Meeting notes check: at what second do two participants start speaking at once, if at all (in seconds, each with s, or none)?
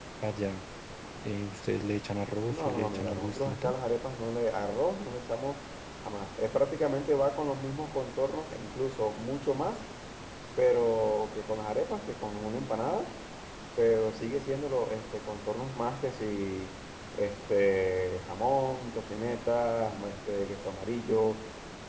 2.5 s